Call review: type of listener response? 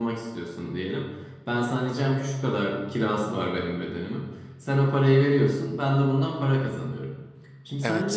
listening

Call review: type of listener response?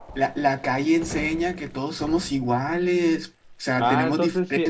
taking over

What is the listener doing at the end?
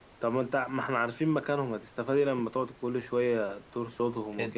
taking over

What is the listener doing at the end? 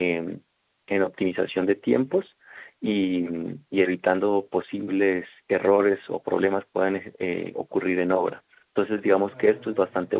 listening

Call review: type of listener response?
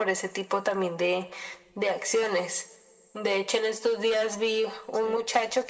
listening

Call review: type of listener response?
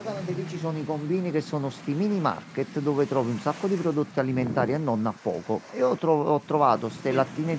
listening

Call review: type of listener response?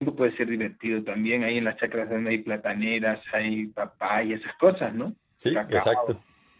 taking over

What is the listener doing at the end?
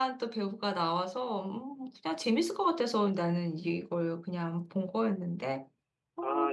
taking over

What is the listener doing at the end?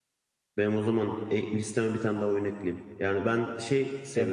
listening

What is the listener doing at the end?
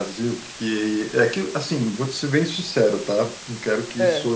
listening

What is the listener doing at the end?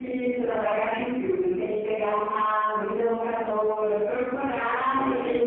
listening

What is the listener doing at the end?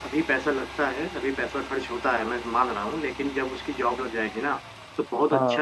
listening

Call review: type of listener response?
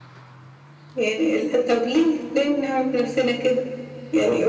listening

